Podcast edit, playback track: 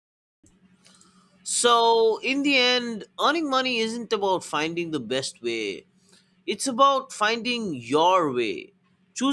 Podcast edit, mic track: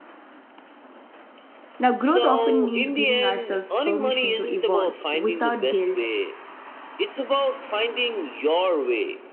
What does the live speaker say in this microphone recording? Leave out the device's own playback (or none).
Now, growth often means giving ourselves permission to evolve without guilt